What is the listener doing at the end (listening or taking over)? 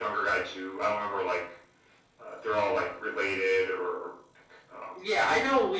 taking over